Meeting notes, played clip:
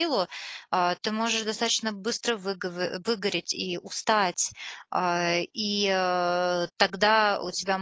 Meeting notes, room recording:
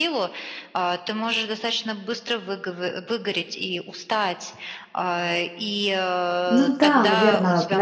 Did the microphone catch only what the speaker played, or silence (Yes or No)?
No